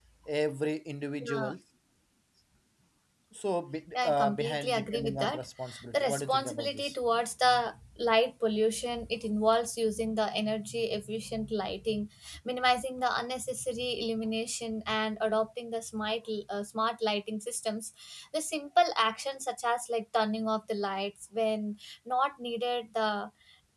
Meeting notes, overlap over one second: present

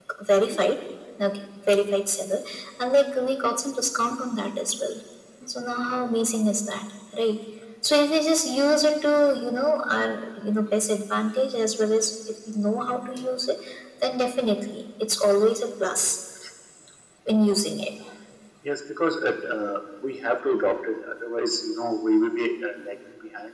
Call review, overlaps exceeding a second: none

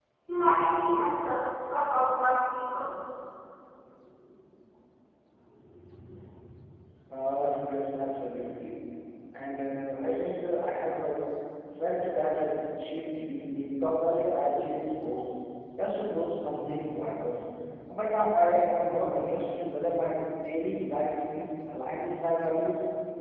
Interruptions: none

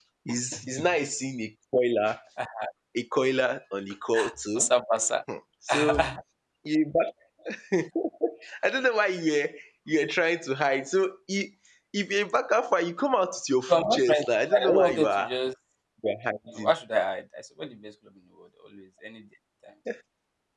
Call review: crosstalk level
present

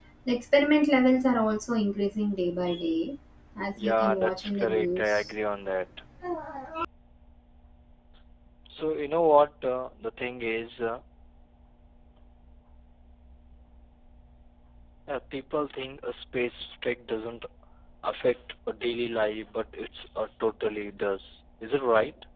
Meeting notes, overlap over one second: present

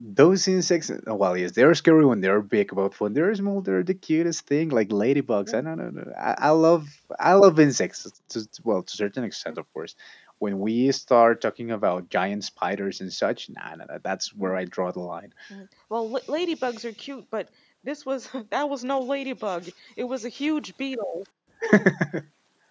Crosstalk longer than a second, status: none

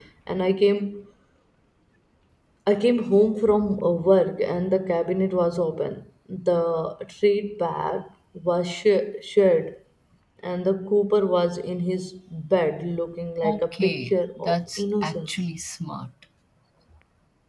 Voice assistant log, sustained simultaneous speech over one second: present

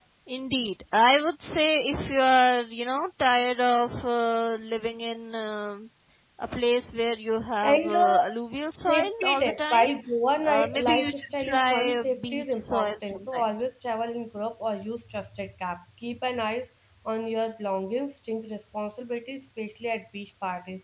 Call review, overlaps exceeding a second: present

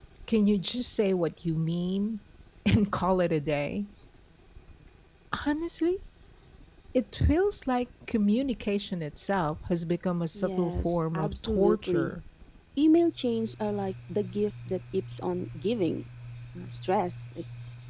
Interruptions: present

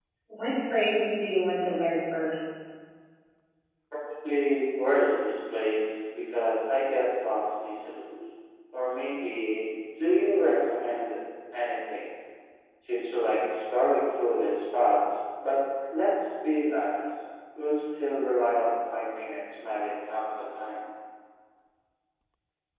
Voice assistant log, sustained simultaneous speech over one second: none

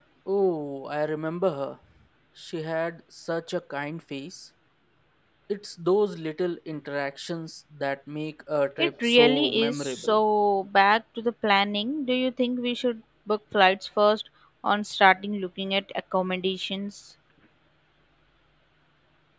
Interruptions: present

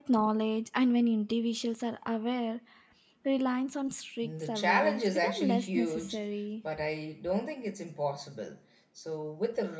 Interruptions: present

